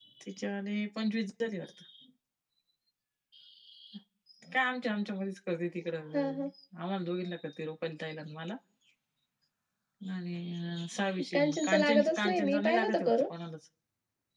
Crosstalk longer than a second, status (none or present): present